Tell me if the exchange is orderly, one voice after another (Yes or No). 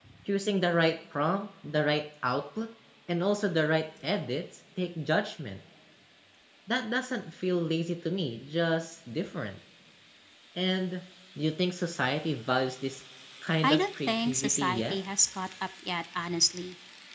No